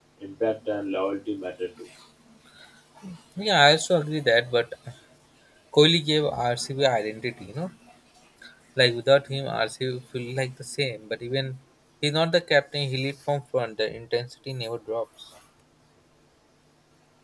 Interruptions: none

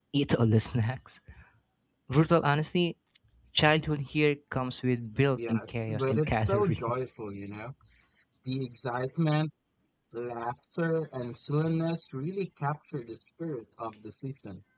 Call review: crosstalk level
present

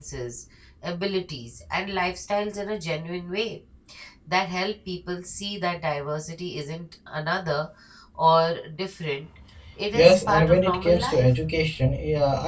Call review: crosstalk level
present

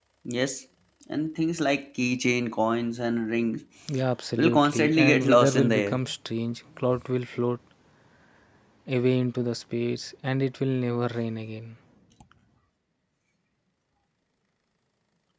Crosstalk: present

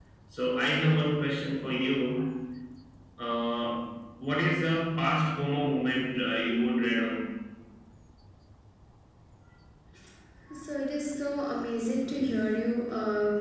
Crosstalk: none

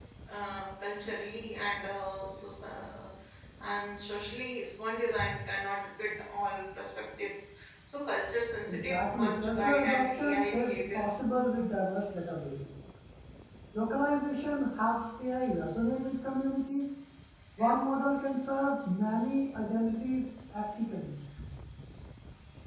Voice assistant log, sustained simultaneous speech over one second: present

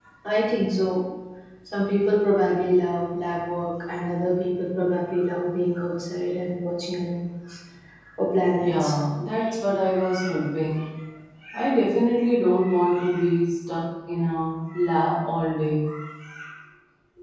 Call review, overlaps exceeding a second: none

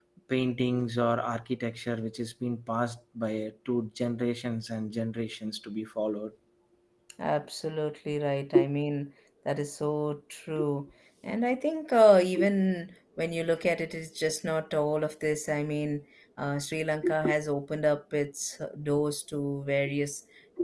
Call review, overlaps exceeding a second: none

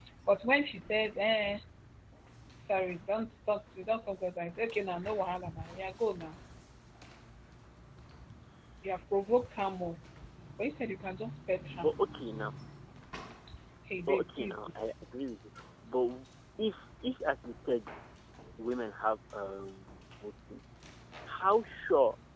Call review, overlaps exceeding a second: none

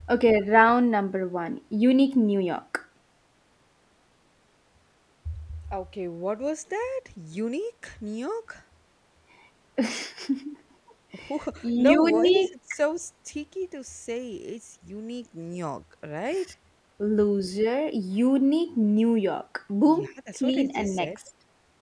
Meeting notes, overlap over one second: present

